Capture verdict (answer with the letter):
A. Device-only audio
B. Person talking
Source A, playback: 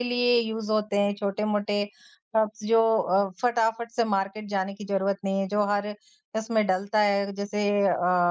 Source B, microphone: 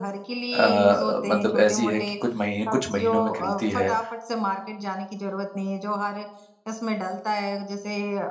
B